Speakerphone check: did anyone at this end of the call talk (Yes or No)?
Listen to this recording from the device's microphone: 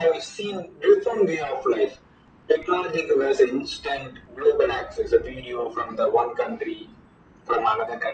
No